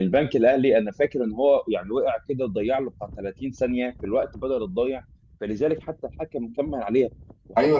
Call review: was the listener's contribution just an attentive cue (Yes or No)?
Yes